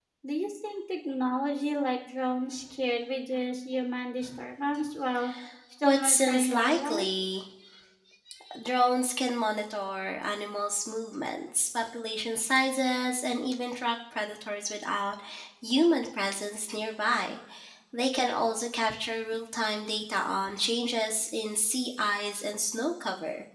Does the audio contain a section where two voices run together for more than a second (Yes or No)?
Yes